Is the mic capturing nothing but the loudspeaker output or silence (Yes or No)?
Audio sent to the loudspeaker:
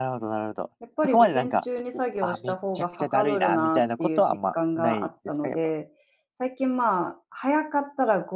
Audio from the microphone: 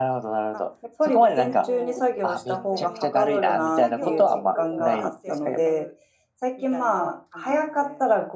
No